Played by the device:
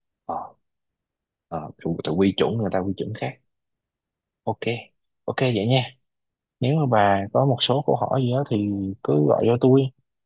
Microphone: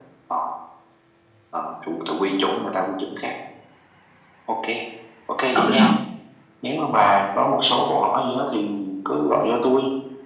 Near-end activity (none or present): present